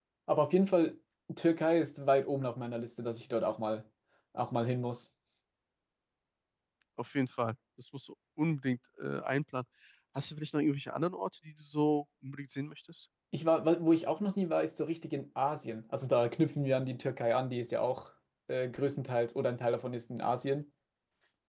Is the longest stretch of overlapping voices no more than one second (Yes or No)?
Yes